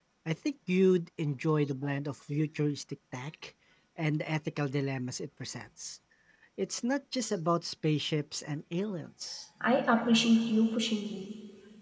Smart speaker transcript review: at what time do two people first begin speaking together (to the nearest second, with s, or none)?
none